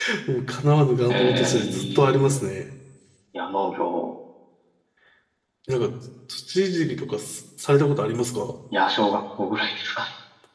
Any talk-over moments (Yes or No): Yes